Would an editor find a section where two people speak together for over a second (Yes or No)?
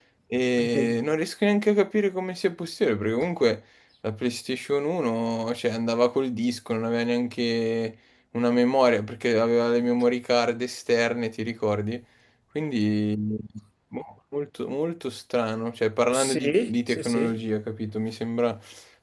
Yes